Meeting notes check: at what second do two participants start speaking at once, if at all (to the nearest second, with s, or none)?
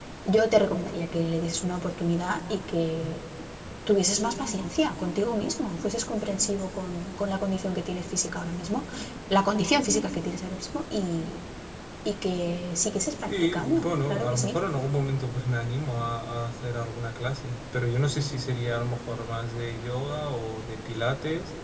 13 s